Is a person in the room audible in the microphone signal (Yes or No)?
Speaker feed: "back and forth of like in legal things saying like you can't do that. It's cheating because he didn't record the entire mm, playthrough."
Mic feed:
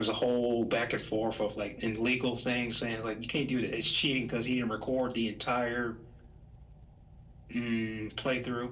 No